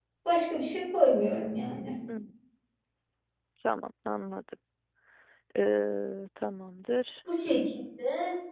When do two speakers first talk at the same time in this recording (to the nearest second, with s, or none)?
none